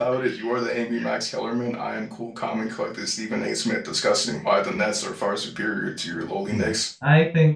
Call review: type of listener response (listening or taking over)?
taking over